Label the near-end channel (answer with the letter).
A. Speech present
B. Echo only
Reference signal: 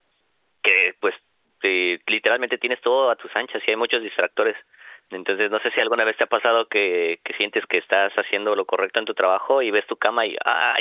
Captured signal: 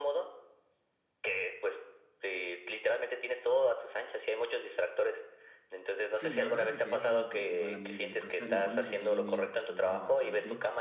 A